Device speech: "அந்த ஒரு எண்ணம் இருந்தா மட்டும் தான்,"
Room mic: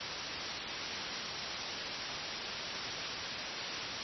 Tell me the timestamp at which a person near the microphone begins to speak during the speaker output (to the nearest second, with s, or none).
none